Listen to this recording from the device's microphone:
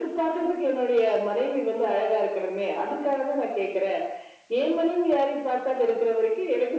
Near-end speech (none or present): none